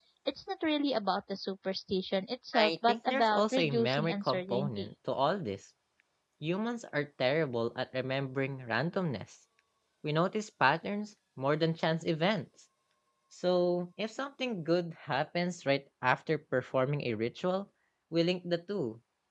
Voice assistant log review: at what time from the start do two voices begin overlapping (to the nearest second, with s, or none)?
3 s